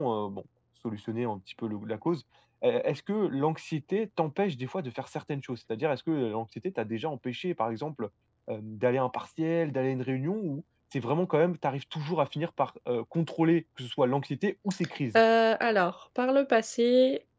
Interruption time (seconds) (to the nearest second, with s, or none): none